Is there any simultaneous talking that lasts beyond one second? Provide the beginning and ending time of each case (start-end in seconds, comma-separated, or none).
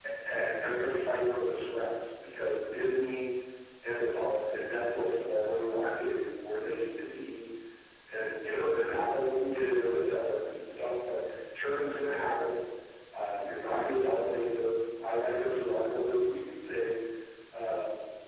none